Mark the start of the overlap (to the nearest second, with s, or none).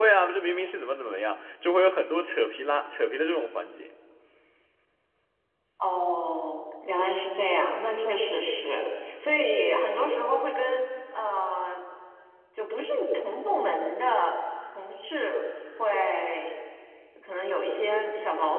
none